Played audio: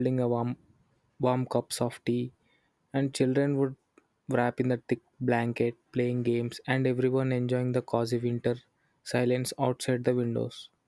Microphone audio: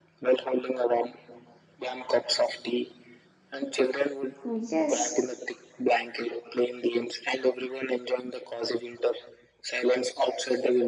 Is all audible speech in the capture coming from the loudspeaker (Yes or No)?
No